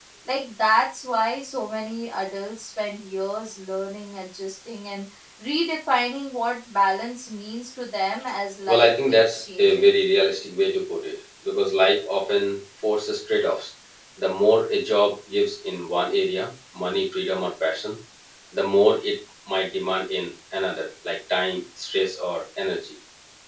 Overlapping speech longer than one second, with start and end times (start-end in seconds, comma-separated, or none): 8.7-9.9